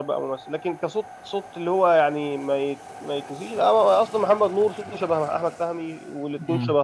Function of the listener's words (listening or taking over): listening